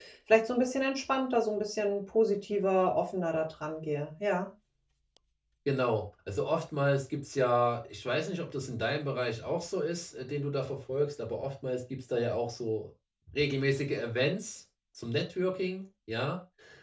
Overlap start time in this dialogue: none

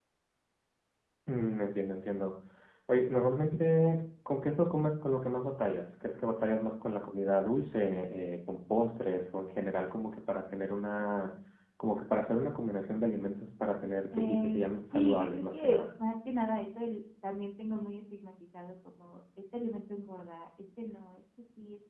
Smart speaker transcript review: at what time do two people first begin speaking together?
14.1 s

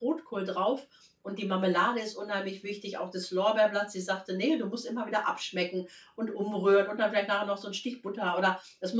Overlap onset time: none

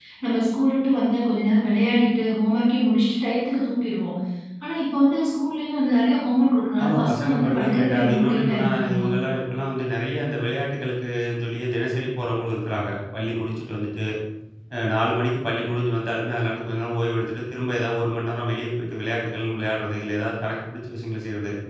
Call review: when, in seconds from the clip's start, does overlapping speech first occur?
6.8 s

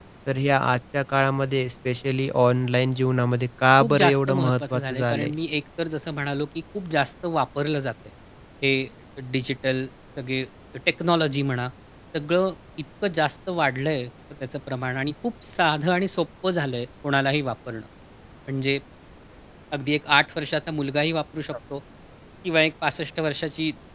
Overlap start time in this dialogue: 3.8 s

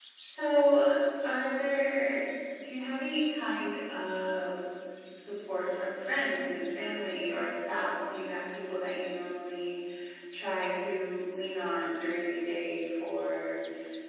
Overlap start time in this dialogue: none

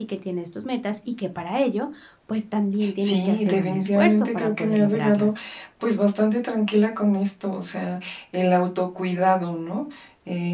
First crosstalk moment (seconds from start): 3.0 s

